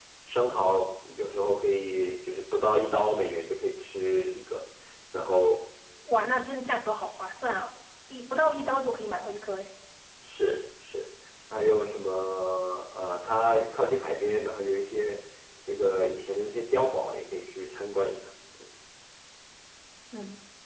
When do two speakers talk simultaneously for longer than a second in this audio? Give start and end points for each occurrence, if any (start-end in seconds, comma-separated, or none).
none